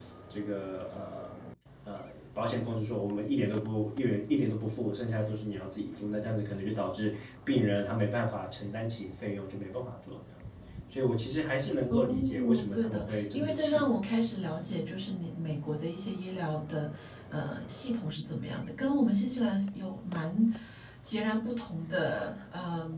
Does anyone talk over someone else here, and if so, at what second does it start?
12 s

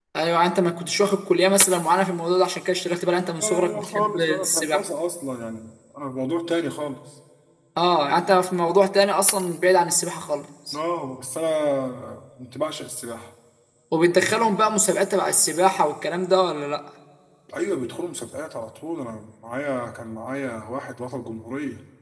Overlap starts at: 3 s

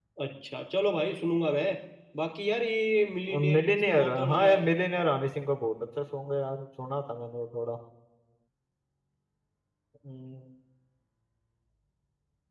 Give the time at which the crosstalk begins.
3 s

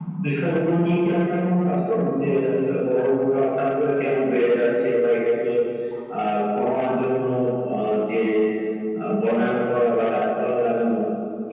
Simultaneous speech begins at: none

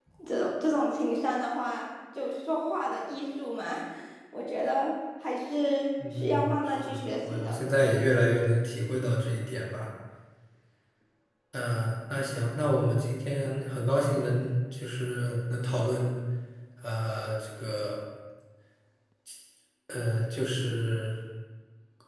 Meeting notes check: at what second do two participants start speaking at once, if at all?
6 s

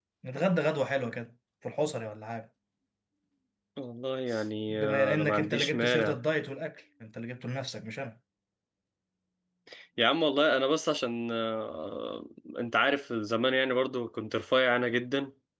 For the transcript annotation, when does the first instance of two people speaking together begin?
5 s

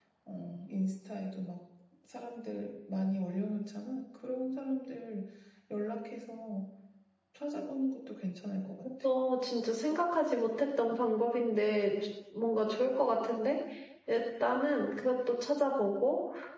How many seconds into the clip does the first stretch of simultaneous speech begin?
none

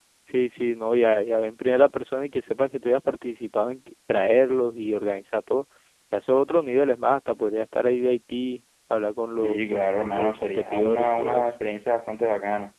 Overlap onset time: 9 s

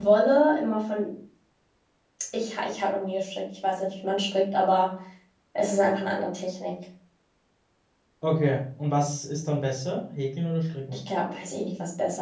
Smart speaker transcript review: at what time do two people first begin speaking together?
none

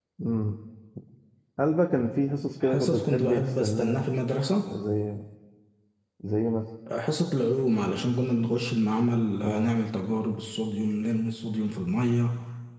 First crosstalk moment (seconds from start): 3 s

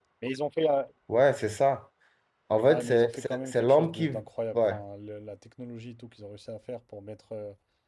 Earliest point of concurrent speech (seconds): 3 s

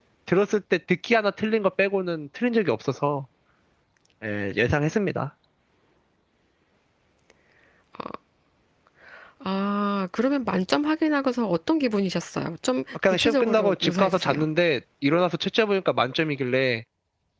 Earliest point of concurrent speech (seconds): 13 s

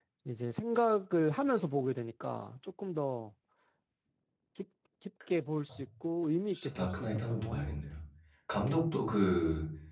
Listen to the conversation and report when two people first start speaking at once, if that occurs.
7 s

